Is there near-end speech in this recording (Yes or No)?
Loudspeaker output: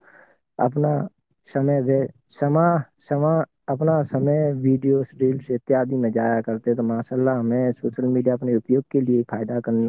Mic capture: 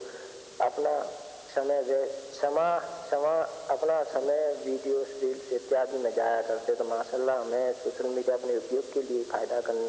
No